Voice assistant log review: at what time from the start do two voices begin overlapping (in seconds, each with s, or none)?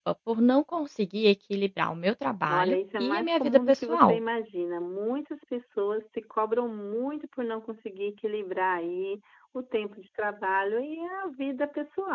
2.5 s